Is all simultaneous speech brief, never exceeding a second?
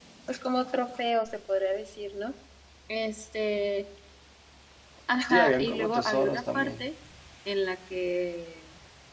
No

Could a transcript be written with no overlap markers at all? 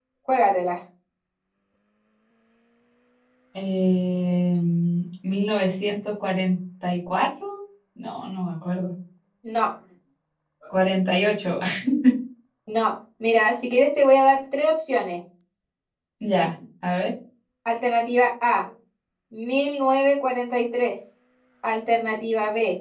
Yes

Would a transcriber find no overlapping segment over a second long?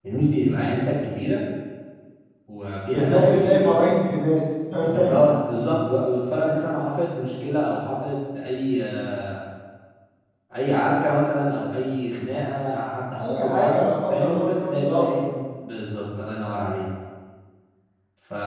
No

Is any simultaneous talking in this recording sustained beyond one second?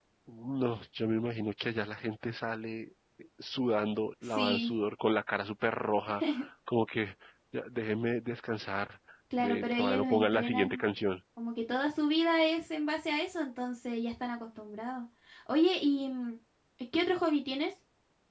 Yes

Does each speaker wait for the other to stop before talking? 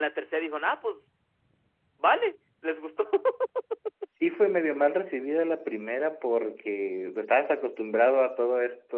Yes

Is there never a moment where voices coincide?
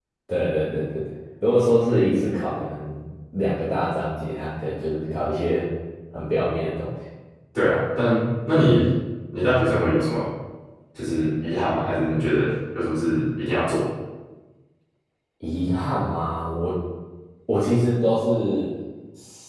Yes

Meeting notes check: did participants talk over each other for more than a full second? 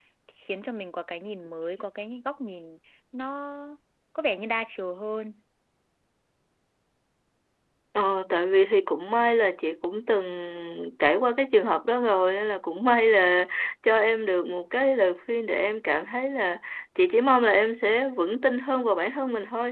No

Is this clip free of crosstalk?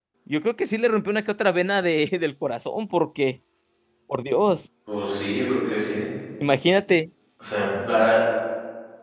Yes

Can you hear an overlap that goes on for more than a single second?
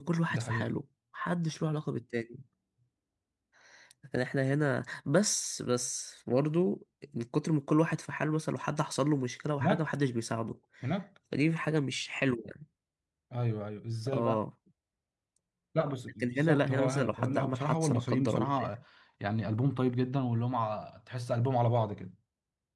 Yes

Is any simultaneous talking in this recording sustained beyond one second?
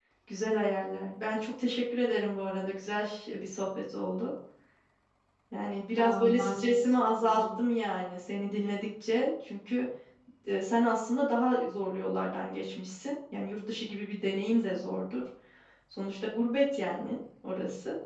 Yes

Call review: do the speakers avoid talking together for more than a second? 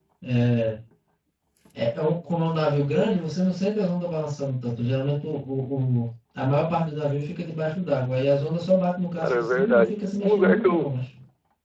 No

